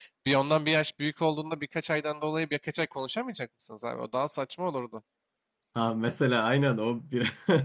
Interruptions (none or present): none